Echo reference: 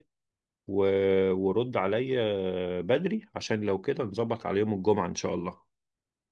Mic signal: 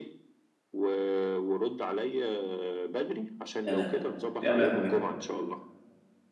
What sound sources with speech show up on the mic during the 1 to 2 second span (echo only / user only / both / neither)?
echo only